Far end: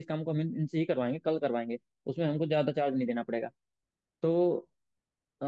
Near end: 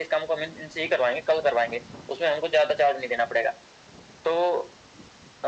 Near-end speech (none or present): none